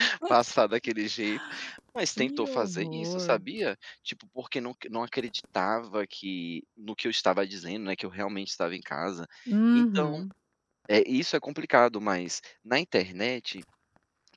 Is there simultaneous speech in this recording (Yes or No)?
Yes